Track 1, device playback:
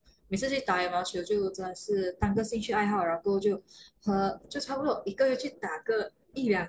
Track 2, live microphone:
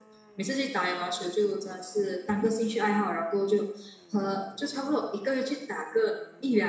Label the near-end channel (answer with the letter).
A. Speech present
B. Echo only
B